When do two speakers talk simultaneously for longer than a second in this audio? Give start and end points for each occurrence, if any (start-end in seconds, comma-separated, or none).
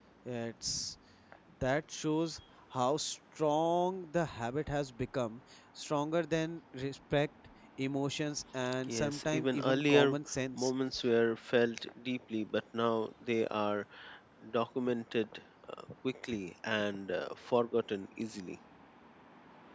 8.9-10.2